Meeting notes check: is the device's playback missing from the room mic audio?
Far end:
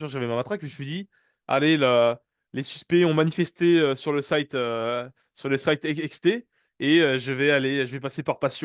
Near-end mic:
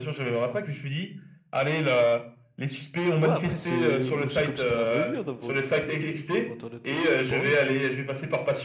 No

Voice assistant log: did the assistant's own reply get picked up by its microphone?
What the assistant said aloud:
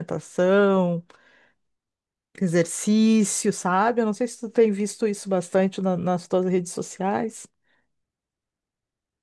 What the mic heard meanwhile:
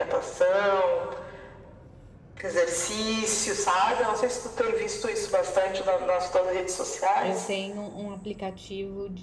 Yes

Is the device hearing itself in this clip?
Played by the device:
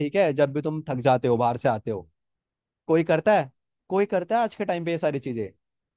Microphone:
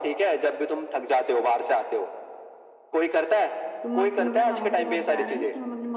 Yes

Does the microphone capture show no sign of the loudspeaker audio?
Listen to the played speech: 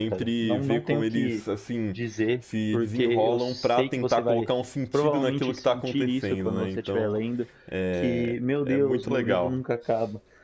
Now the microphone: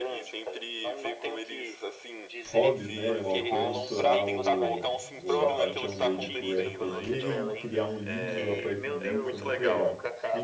No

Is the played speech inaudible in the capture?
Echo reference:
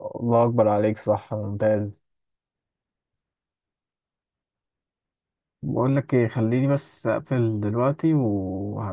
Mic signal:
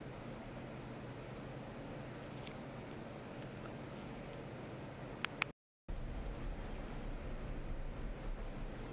Yes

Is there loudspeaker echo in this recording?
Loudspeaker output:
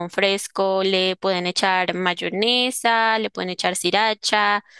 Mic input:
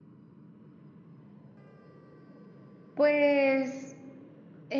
No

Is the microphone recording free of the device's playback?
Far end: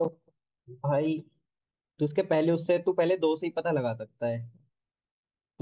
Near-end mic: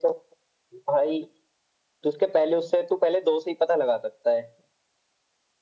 No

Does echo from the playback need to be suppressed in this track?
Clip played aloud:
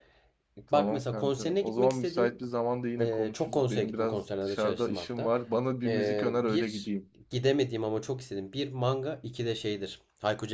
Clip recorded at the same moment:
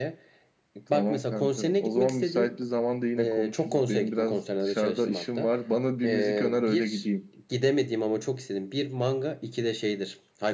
Yes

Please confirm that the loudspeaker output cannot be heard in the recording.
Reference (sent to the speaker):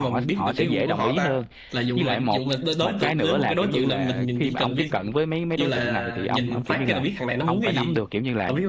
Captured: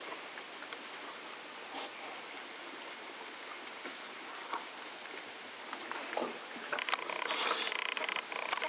Yes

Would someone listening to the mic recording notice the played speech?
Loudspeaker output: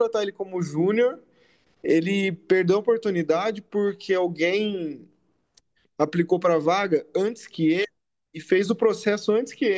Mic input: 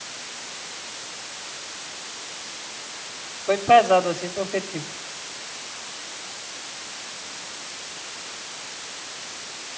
No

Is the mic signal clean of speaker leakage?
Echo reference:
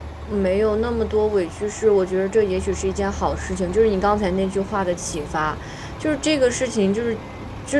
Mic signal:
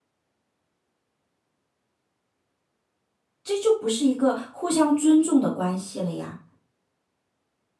Yes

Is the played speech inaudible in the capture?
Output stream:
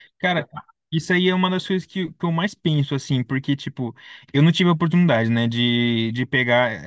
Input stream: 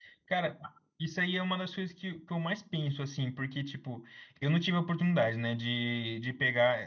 No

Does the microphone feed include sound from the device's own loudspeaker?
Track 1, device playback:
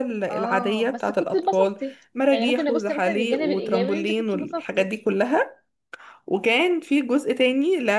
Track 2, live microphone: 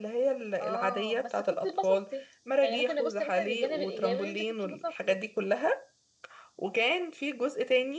Yes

